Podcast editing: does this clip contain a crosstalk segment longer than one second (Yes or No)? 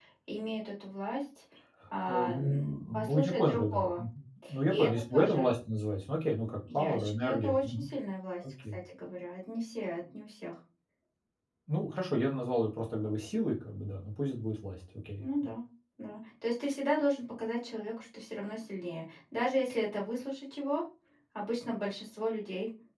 Yes